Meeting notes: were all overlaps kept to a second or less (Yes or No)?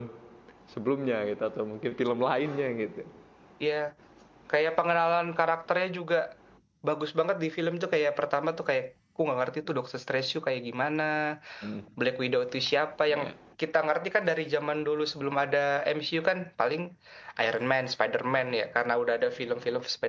Yes